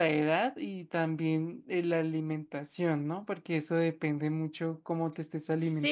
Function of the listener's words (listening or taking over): taking over